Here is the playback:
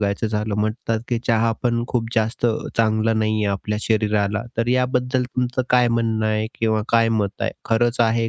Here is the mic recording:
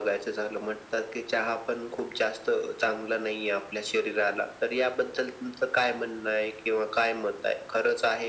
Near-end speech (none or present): none